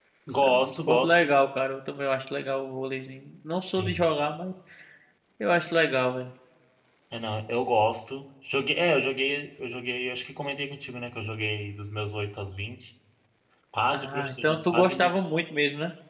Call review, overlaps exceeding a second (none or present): present